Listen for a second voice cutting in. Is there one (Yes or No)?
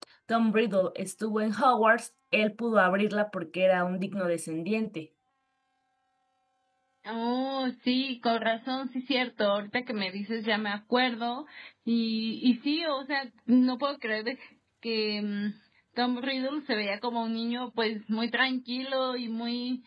No